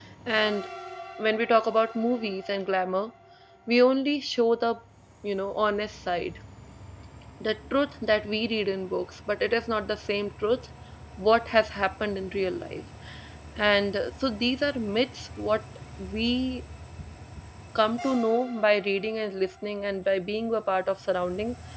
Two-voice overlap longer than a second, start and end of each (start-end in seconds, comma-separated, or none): none